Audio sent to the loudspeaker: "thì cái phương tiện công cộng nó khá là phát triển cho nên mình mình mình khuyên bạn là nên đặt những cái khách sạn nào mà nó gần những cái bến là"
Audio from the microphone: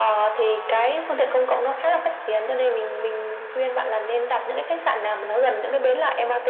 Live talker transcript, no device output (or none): none